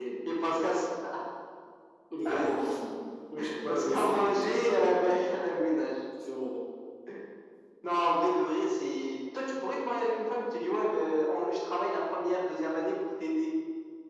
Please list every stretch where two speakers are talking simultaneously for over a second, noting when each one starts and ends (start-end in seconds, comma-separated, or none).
3.6-5.3